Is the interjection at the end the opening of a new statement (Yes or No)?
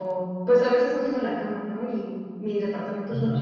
No